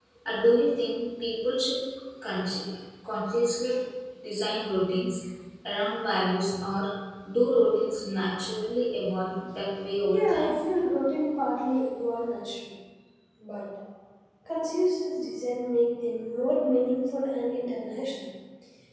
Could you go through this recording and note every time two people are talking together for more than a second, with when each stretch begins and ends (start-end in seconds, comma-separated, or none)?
none